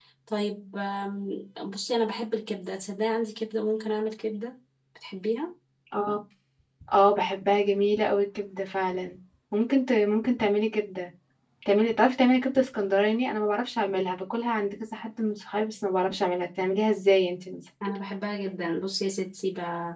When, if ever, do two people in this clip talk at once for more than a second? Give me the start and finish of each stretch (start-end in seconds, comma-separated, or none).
none